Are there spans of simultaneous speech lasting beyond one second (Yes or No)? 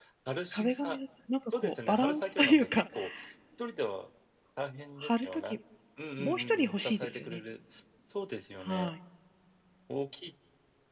Yes